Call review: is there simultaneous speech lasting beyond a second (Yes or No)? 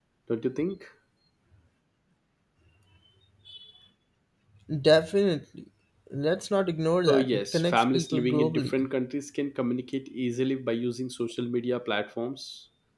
Yes